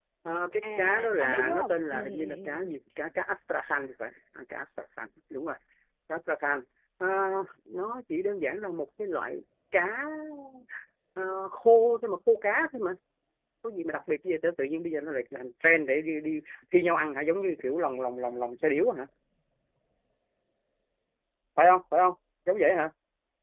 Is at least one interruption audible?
Yes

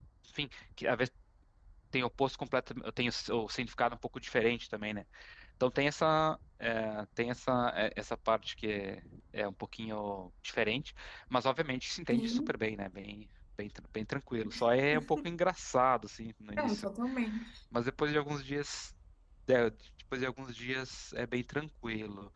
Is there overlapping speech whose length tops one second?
No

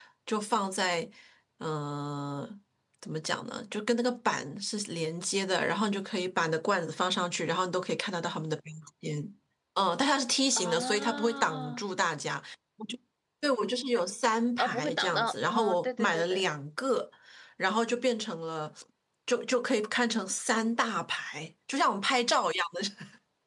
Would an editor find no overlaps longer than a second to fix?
No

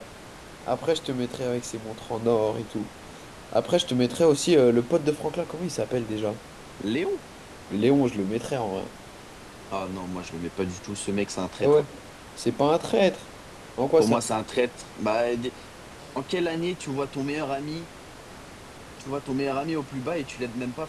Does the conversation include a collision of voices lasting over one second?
No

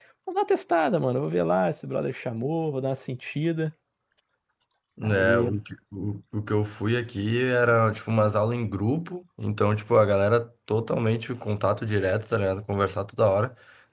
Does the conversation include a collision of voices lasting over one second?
No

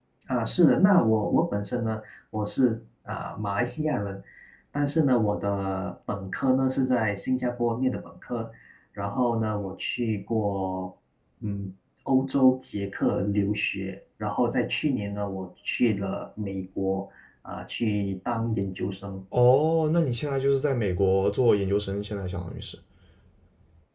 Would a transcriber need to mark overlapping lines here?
No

